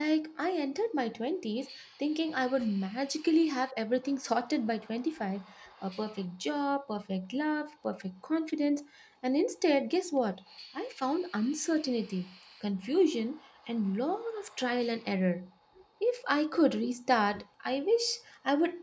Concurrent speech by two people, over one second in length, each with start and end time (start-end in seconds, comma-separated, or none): none